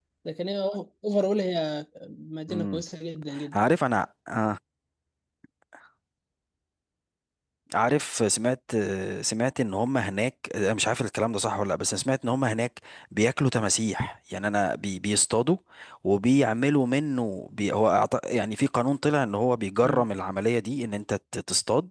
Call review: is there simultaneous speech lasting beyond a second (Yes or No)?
No